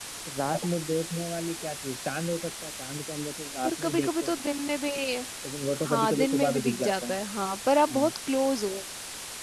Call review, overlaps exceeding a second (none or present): present